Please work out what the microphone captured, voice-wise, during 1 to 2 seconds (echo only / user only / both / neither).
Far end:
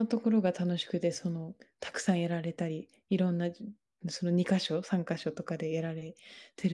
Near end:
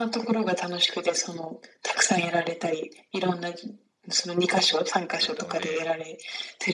echo only